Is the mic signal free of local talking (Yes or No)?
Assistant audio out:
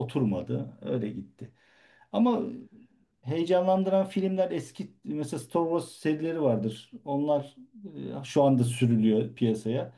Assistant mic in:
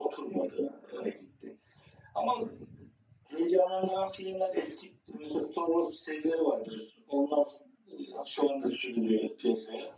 Yes